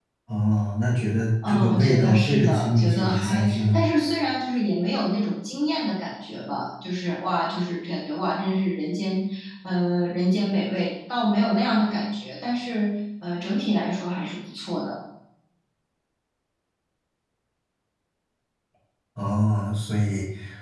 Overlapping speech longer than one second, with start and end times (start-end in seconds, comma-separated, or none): 1.5-3.8